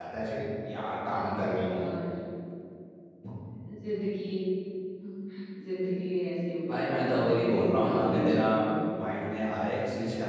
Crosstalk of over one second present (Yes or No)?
Yes